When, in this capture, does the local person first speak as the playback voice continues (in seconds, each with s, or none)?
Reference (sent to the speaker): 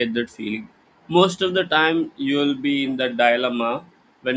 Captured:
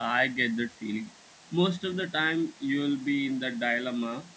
none